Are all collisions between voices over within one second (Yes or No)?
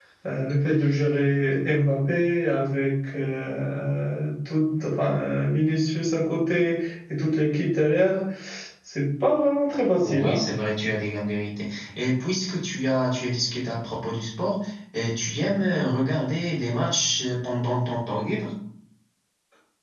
Yes